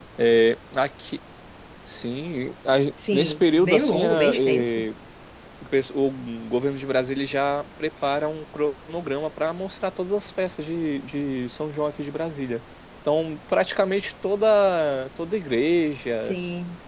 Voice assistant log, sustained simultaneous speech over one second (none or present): present